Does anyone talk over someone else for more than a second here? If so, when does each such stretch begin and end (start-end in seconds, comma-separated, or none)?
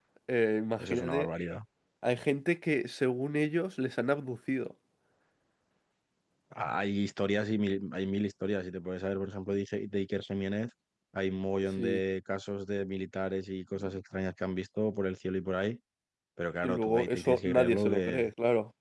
16.6-18.2